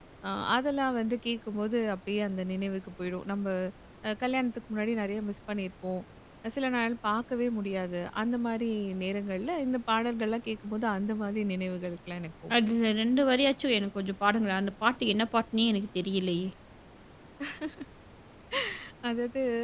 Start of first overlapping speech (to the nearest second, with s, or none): none